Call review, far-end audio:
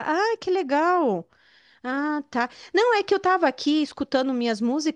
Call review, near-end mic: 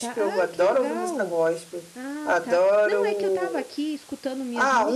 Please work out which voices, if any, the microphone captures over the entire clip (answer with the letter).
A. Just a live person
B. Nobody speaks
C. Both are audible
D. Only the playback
C